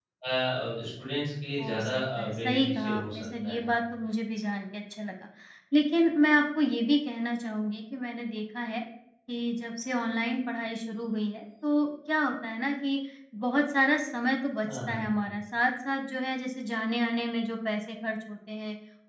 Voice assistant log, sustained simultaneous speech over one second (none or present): present